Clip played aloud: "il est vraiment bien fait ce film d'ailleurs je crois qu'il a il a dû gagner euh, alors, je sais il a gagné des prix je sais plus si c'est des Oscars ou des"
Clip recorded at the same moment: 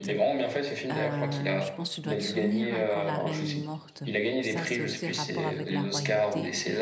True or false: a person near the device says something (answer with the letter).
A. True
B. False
A